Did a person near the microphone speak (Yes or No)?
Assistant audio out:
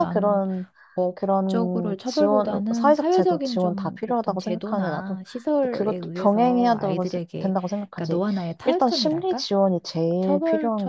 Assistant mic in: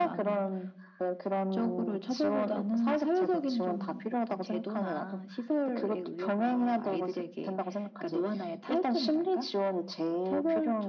No